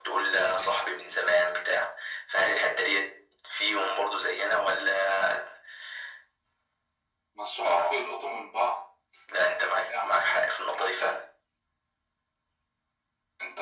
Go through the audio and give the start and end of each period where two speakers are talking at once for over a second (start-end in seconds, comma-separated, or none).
9.6-11.1